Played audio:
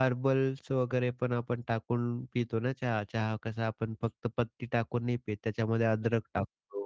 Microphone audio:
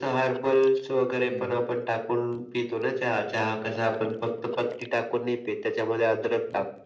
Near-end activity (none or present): present